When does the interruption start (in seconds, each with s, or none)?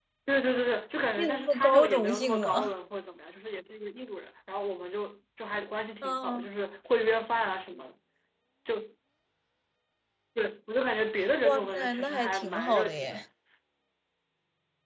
1.2 s